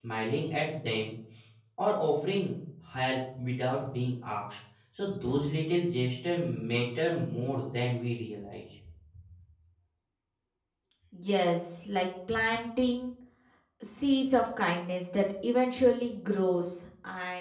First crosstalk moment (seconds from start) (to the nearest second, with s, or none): none